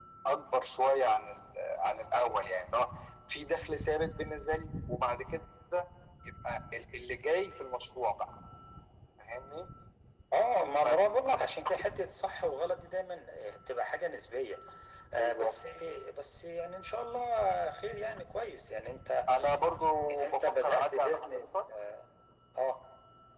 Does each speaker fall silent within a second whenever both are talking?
No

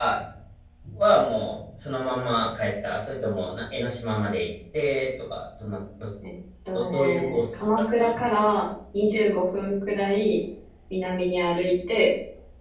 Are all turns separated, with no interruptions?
No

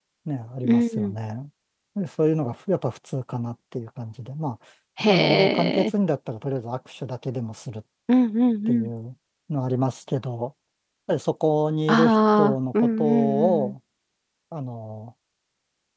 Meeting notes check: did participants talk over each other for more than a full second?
Yes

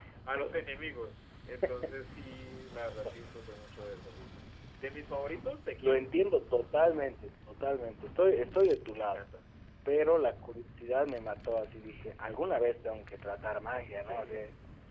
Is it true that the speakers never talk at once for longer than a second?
Yes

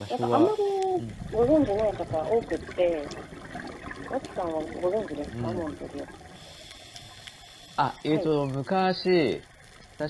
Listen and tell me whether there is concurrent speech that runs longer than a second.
No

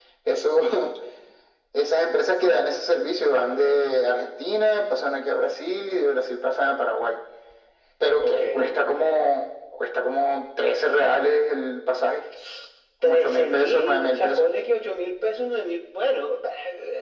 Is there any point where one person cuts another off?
Yes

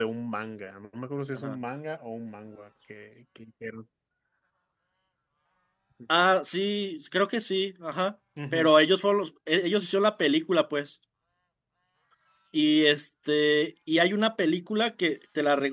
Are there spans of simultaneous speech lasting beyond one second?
No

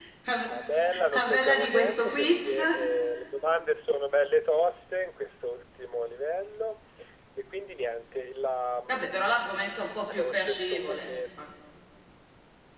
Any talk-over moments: Yes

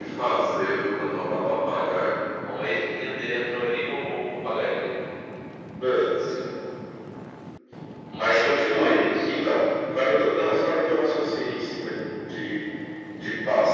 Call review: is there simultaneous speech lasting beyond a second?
Yes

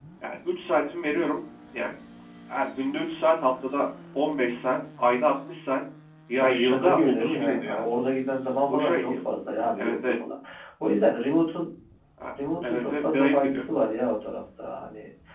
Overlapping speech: Yes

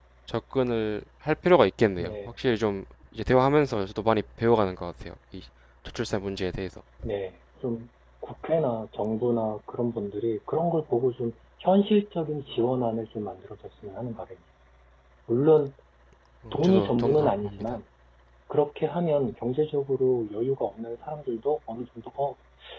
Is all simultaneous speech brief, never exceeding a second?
No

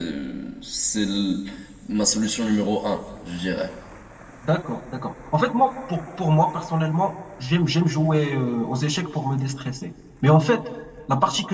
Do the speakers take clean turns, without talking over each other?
Yes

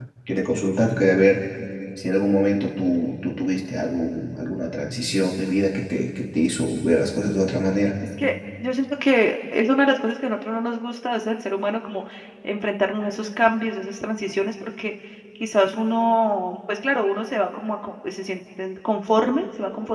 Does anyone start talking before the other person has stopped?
No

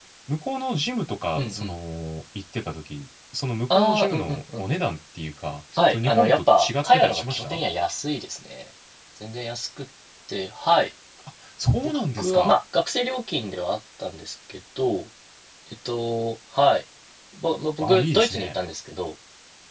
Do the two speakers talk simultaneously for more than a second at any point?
Yes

